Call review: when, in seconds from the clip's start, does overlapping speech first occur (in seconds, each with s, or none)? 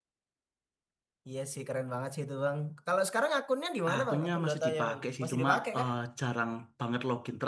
3.9 s